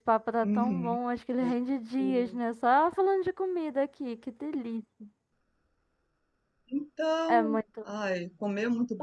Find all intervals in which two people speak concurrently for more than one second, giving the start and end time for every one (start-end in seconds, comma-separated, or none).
none